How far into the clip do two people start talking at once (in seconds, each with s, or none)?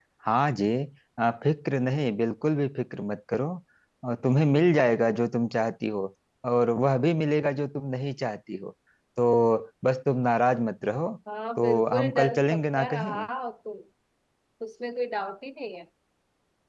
11.6 s